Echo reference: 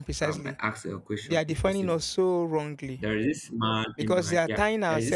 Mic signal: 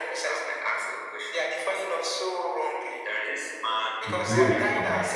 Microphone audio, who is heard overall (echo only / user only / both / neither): both